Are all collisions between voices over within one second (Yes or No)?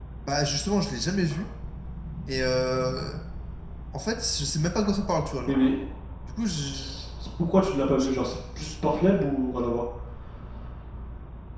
Yes